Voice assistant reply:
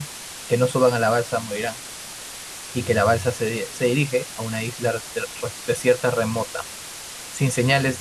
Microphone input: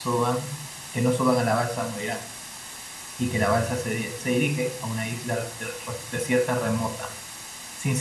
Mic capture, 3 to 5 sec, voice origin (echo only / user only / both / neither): echo only